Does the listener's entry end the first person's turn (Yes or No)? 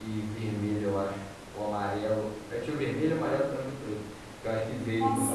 Yes